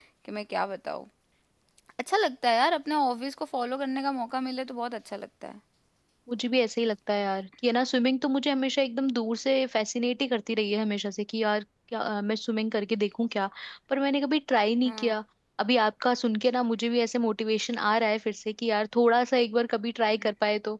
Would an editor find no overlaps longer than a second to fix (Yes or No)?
Yes